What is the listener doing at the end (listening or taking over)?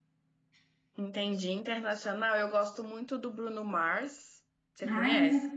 taking over